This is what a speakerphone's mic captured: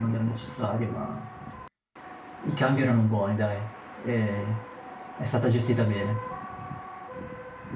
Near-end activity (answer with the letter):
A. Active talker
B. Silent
A